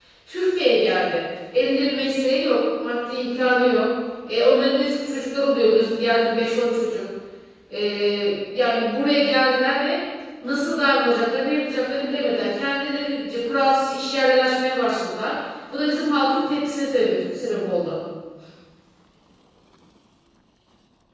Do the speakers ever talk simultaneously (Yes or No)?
No